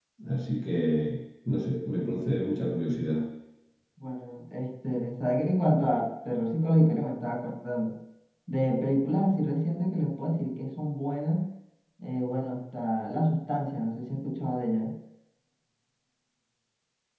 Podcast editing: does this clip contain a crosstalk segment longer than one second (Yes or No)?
No